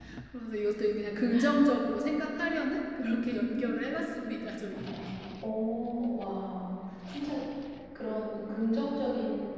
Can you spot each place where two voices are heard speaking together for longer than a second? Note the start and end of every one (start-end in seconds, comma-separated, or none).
3.0-4.3